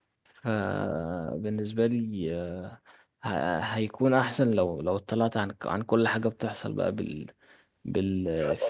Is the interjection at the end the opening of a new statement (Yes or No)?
No